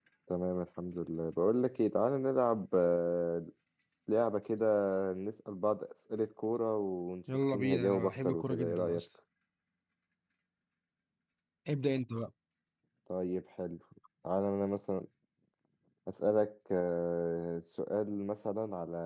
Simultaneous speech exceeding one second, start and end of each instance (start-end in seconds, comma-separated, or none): 7.3-9.0